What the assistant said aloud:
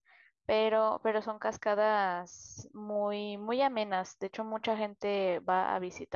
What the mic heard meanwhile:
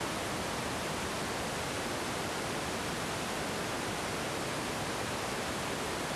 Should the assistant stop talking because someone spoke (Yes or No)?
No